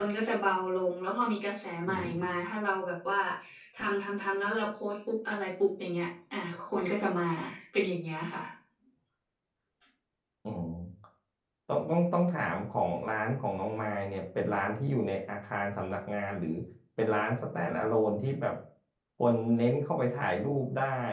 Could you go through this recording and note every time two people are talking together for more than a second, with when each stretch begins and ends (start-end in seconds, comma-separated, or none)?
none